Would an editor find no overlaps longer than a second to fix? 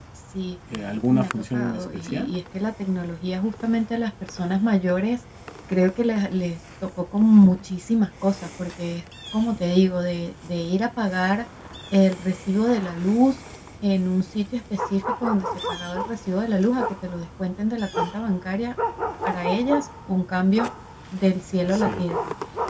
No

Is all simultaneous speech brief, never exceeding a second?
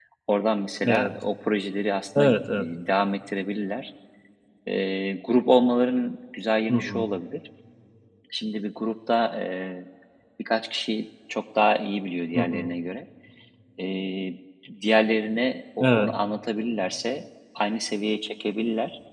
Yes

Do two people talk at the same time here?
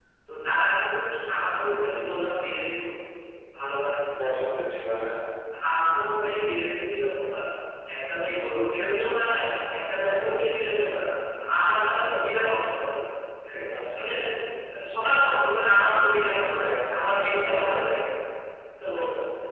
Yes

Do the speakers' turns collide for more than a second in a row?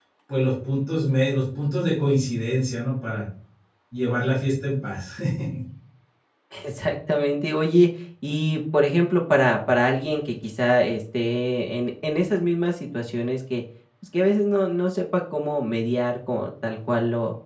No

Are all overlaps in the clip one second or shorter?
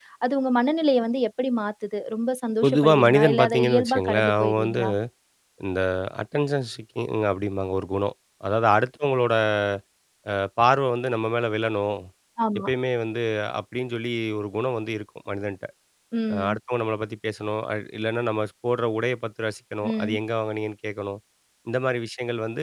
No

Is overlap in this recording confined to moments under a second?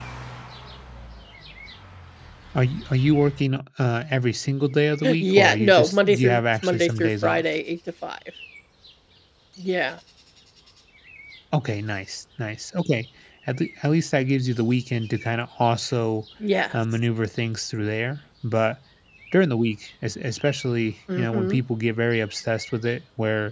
No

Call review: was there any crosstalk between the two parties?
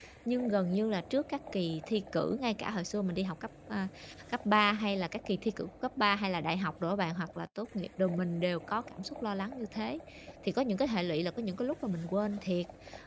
No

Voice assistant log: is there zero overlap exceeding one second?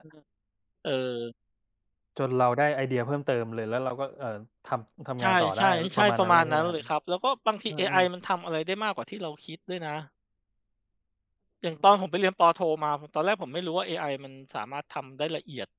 No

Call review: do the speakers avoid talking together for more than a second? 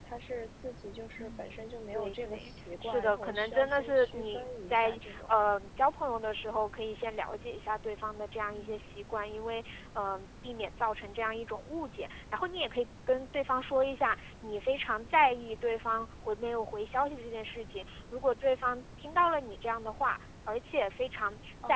No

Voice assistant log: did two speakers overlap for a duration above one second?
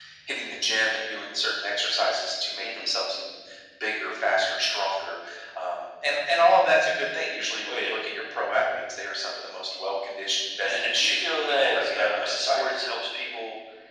Yes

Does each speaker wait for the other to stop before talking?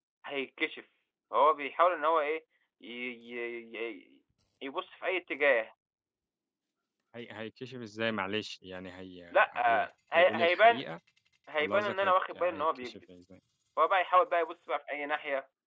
No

